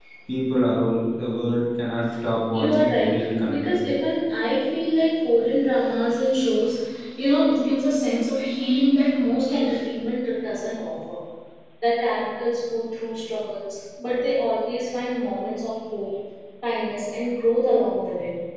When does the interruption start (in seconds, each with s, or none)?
2.5 s